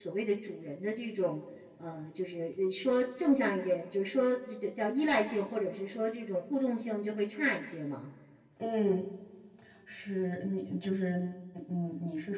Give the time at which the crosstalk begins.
none

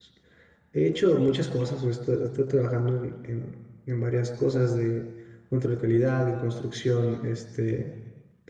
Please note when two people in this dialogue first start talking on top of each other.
none

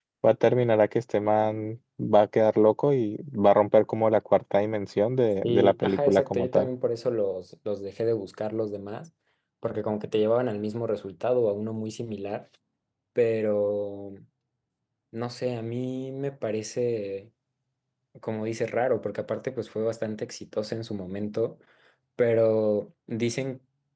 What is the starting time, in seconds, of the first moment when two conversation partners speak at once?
5.4 s

